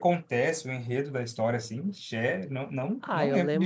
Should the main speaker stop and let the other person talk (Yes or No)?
Yes